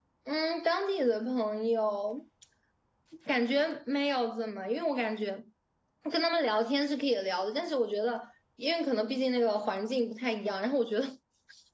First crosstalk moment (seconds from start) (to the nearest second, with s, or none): none